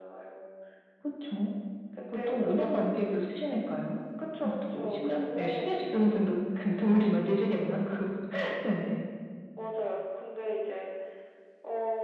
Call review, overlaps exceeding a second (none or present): present